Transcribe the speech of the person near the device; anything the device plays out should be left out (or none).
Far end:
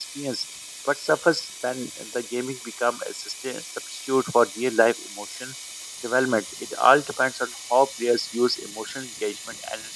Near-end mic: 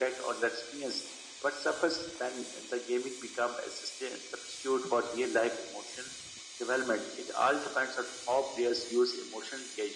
none